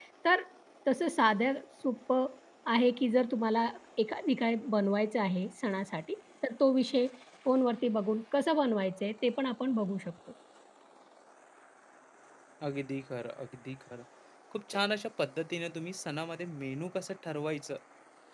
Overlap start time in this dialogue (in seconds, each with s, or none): none